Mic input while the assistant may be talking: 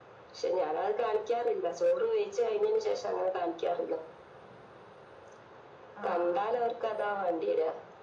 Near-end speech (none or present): present